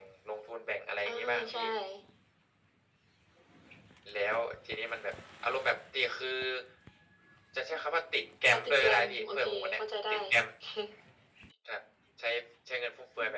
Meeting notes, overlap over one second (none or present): present